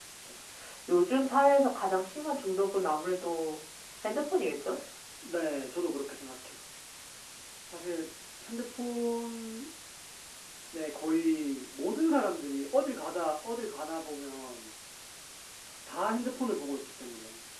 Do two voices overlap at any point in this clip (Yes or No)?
No